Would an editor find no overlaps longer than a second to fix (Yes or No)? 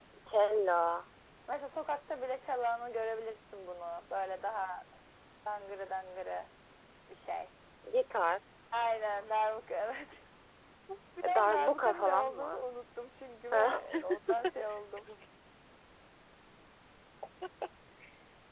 No